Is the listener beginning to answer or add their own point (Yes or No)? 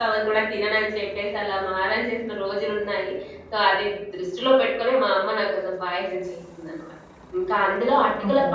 No